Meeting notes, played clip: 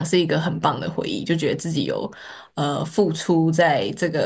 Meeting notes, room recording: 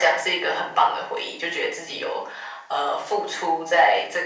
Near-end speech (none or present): none